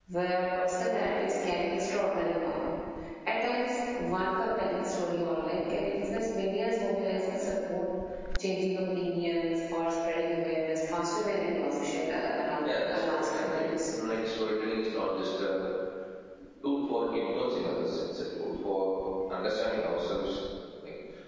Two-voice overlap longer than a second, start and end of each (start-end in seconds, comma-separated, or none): 12.6-13.9